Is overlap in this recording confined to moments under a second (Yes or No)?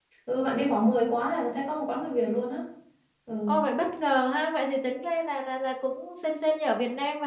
Yes